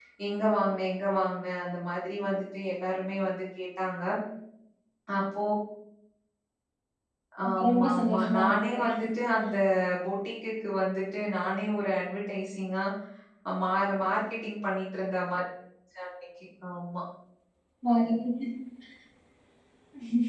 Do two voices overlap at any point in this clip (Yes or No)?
Yes